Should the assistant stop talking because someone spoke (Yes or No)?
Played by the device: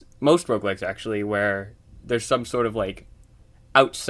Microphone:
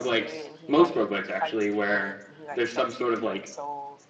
Yes